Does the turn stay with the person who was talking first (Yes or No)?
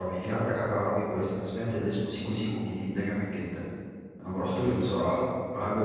Yes